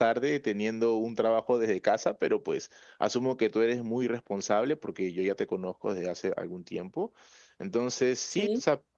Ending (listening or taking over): listening